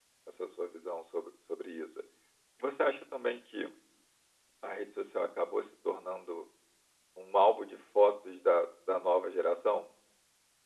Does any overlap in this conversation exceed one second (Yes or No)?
No